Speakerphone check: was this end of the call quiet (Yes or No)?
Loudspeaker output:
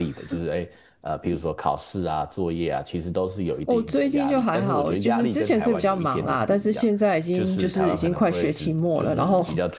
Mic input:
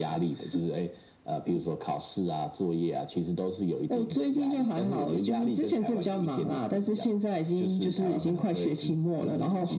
Yes